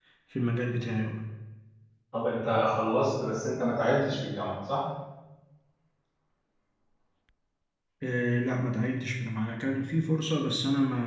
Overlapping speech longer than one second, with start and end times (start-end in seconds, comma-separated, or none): none